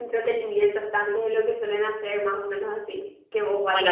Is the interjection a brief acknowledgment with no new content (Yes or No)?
No